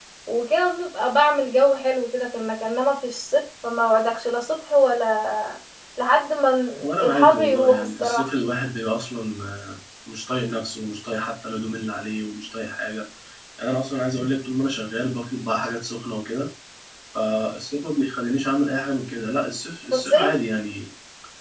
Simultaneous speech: Yes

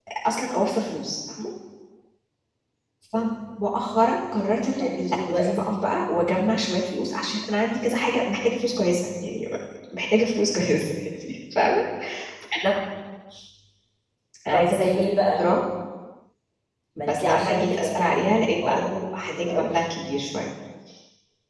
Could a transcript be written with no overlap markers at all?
No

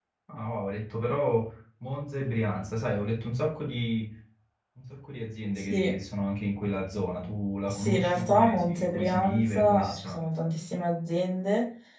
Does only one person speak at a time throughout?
No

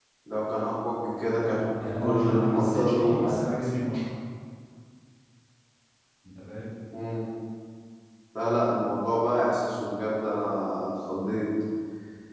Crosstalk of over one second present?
Yes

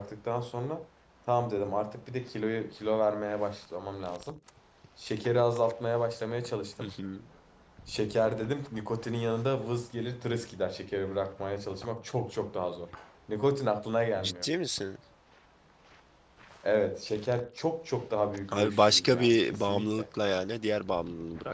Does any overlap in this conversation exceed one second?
Yes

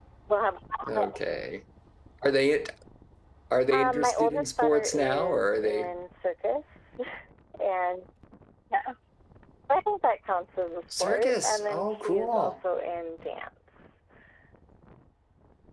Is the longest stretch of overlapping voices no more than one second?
No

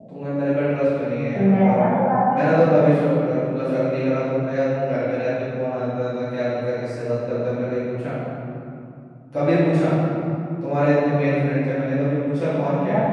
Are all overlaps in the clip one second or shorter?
Yes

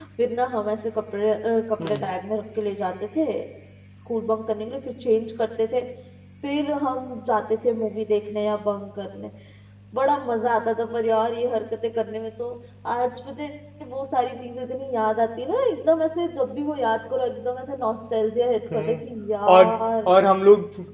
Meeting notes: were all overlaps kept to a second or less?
Yes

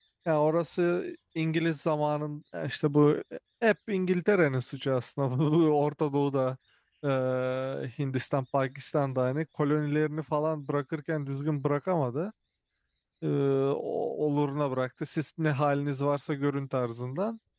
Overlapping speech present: No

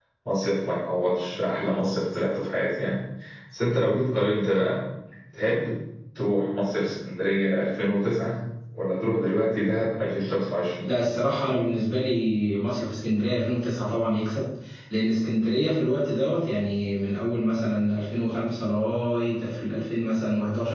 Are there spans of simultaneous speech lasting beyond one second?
No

